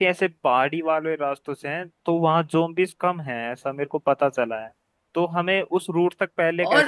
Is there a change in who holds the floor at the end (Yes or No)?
No